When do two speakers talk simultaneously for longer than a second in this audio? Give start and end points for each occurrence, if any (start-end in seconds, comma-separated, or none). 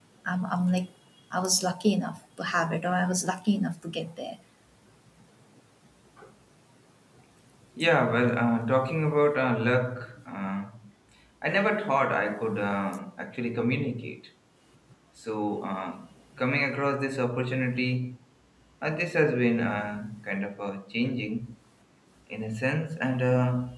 none